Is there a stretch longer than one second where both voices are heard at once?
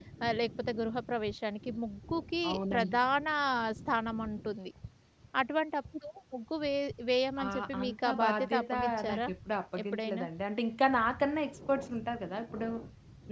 Yes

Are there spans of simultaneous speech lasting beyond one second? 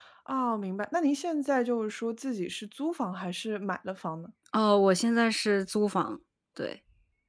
No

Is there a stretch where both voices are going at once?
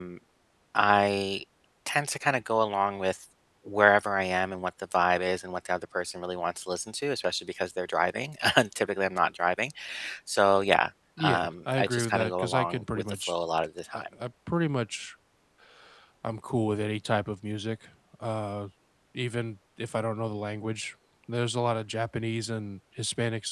Yes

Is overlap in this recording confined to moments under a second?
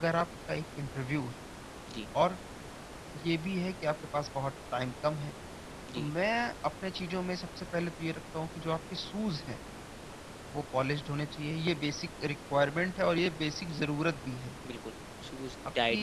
Yes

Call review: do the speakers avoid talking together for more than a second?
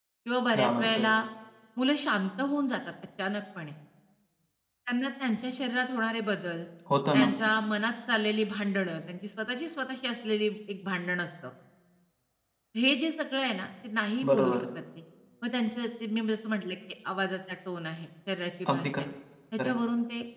Yes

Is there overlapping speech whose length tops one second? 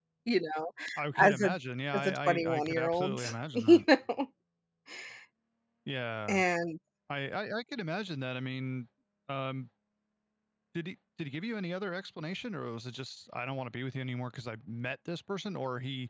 Yes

